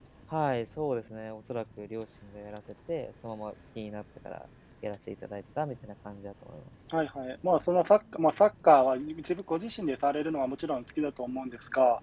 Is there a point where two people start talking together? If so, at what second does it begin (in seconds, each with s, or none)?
none